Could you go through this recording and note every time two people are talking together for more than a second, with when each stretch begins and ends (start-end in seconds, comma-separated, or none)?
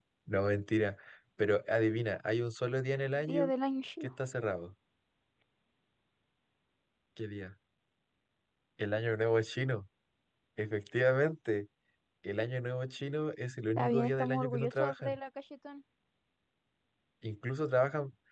13.8-15.2